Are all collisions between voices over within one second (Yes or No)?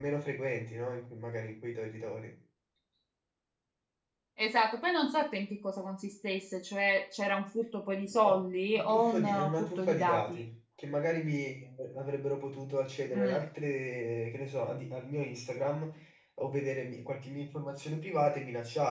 No